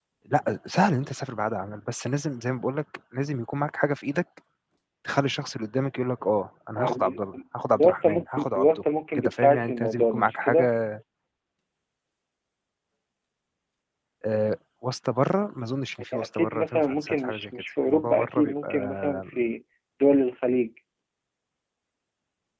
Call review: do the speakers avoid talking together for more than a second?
No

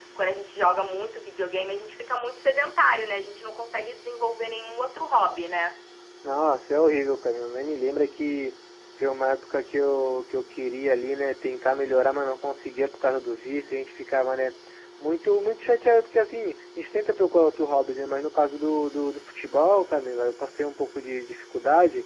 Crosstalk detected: No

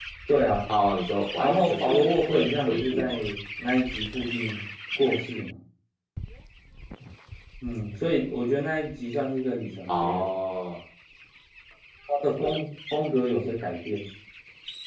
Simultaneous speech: Yes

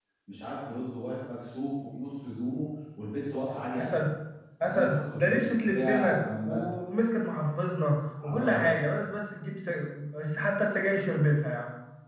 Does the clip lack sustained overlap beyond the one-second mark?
No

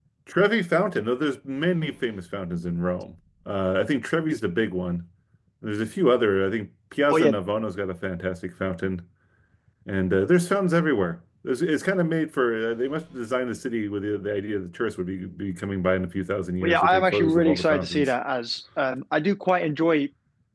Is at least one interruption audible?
Yes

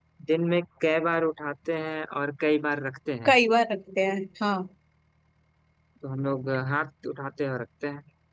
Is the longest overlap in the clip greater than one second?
No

